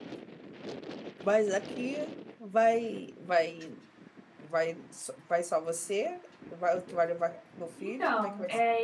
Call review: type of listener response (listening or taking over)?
taking over